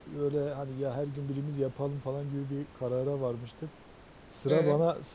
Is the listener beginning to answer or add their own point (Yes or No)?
No